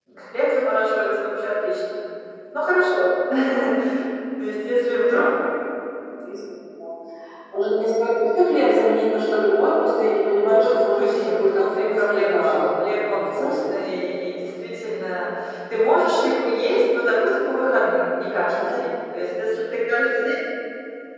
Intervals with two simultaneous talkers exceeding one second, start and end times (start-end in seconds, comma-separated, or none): 10.4-13.7